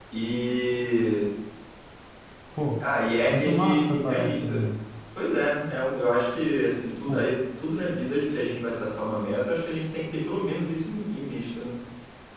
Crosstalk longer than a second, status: present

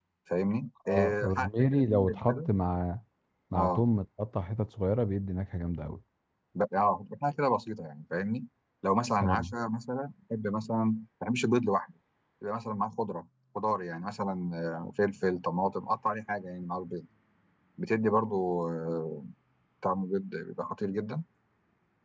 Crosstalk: present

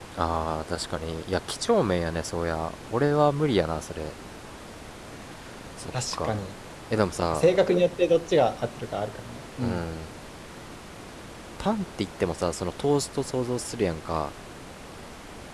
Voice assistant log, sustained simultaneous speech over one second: none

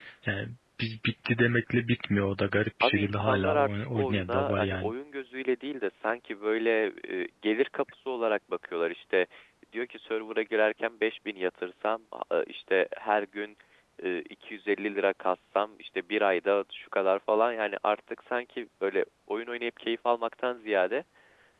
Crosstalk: present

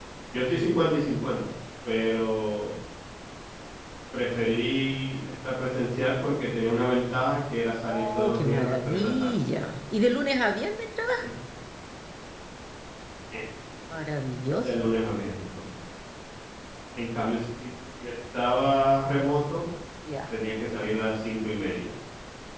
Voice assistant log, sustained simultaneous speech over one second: present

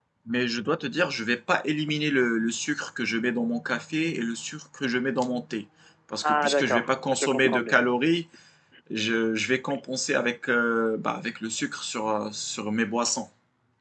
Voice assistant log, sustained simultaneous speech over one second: present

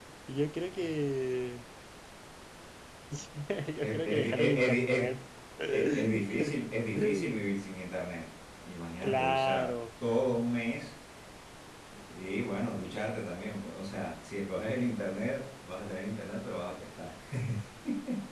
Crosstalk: present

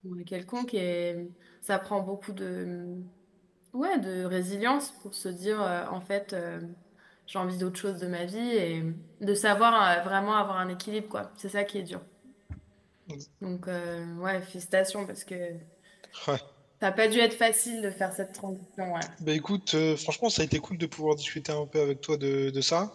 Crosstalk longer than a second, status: none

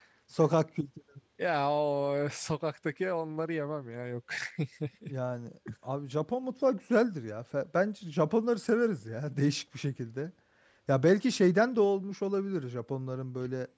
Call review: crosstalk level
none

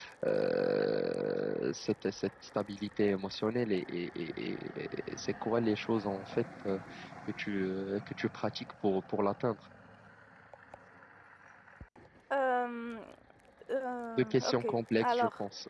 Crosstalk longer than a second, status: present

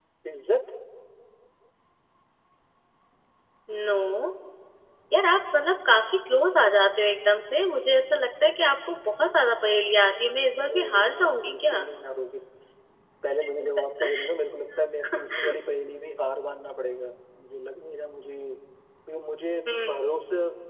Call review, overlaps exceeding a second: present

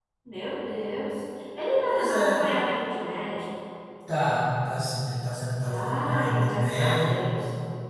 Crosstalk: present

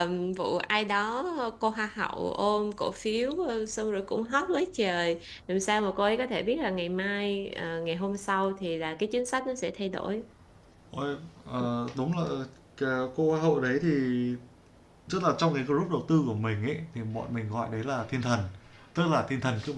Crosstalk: none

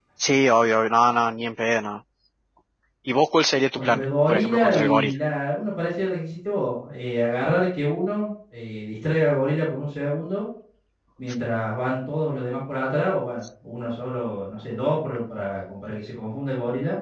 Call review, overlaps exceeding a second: present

